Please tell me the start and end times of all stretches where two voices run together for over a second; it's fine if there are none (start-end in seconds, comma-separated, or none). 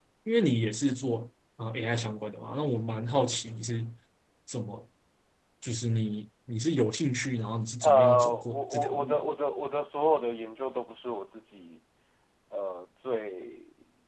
7.8-9.3